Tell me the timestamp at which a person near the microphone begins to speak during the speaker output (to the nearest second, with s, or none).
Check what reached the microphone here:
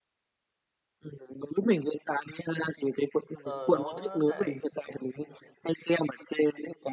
3 s